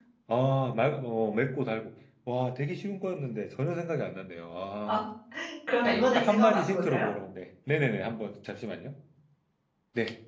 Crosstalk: present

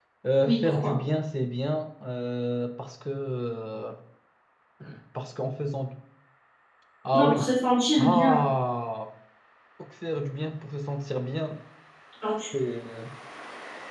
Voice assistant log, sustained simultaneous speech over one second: none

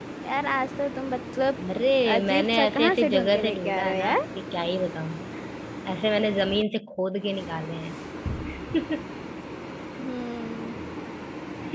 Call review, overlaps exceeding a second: present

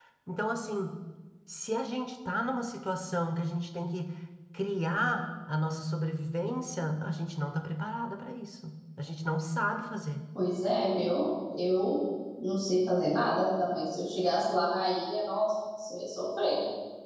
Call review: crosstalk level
none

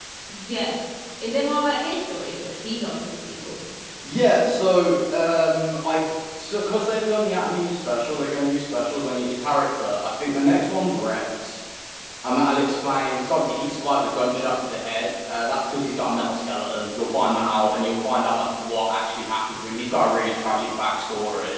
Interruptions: none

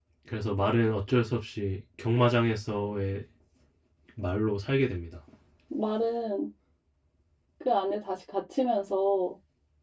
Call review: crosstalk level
none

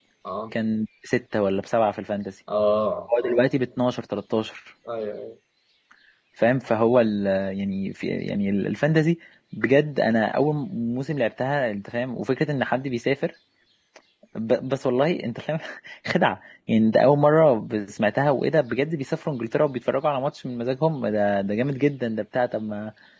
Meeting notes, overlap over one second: none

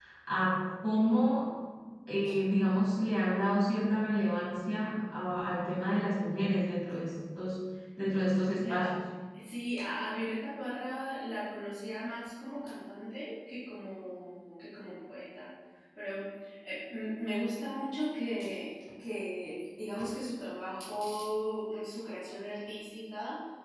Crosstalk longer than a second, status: none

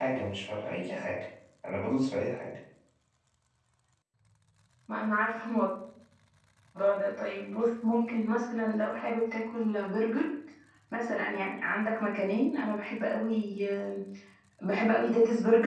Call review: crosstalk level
none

